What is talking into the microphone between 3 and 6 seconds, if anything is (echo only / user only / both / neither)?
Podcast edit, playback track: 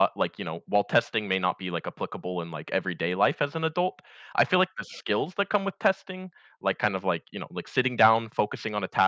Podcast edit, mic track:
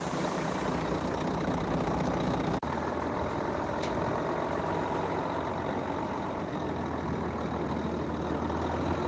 neither